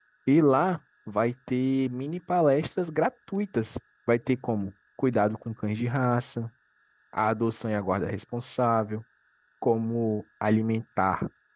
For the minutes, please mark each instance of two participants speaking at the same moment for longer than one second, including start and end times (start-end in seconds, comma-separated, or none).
none